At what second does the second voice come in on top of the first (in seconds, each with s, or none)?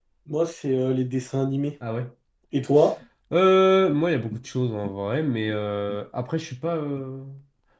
none